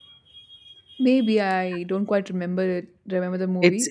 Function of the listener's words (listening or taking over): taking over